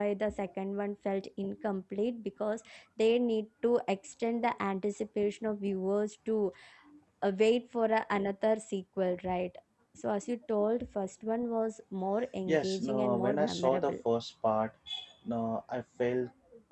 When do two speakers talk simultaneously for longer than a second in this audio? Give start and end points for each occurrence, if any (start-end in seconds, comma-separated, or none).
12.5-14.0